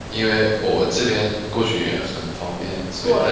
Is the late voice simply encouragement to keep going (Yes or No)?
No